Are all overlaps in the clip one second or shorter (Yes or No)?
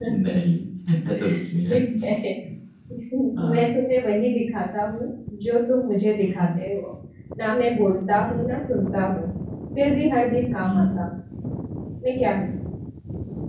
Yes